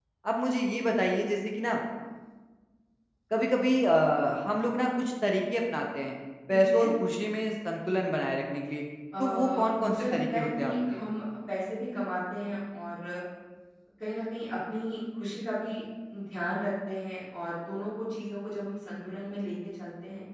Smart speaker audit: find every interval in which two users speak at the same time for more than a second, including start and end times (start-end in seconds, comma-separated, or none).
9.2-11.0